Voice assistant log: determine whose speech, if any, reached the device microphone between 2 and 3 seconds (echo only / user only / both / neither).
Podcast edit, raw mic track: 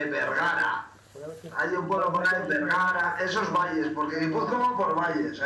both